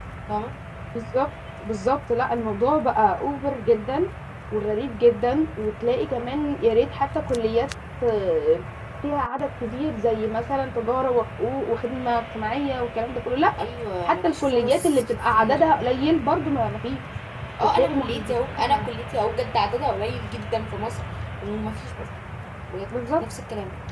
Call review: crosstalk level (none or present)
present